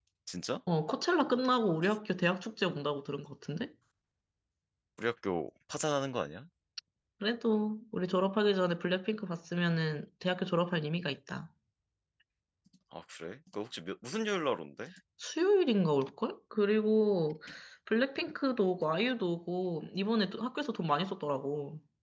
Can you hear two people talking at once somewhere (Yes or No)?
No